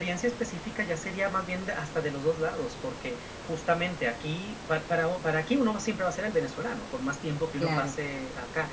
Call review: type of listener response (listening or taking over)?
listening